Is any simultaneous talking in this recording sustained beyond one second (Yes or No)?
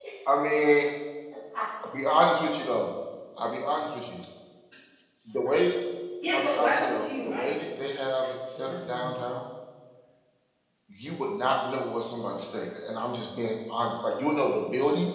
Yes